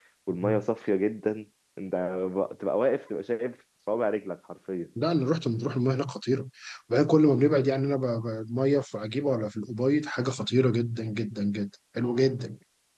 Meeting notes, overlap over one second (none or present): none